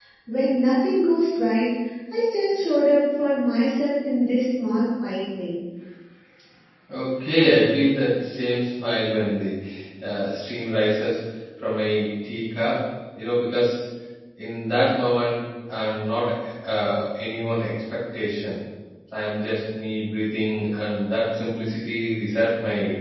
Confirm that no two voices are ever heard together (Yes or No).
Yes